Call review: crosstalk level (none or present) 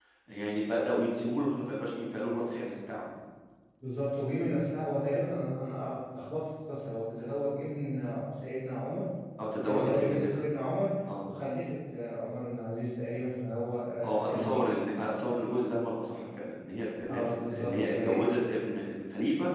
present